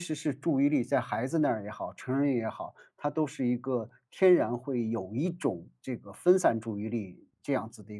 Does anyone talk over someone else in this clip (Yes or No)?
No